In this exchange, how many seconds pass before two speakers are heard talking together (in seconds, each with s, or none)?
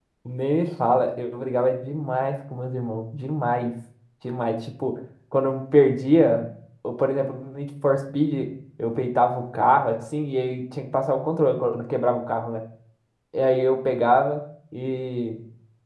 none